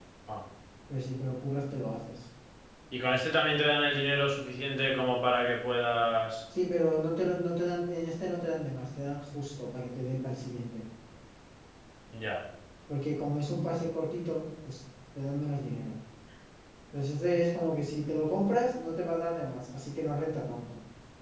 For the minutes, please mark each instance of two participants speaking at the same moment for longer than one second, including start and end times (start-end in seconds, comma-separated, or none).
none